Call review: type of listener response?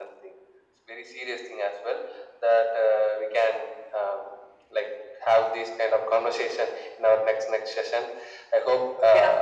listening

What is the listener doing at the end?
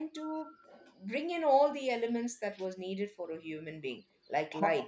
taking over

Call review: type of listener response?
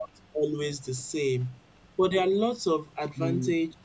listening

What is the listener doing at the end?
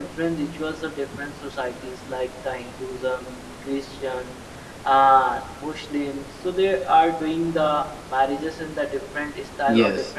taking over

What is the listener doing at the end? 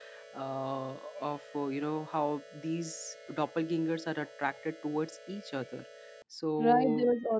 taking over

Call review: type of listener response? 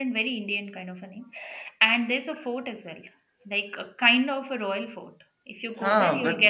taking over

